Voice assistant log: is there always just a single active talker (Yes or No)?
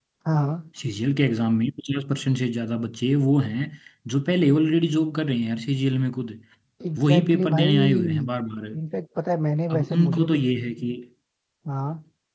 No